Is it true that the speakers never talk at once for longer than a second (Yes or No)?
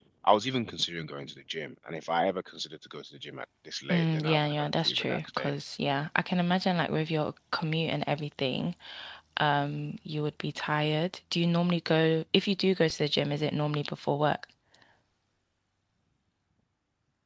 No